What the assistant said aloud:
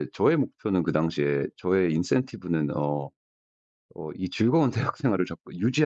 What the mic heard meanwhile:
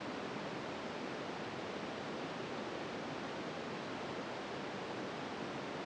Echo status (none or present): none